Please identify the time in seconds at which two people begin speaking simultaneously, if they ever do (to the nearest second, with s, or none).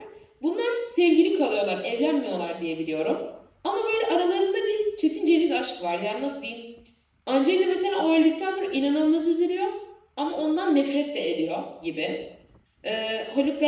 none